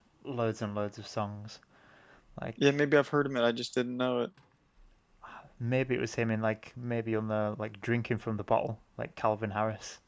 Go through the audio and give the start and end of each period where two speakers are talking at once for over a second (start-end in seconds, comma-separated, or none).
none